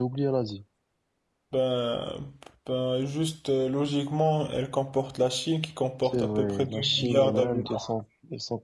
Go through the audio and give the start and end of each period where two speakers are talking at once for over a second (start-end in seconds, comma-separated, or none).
6.0-7.8